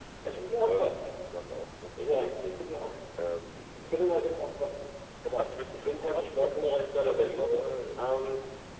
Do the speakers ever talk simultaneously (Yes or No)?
Yes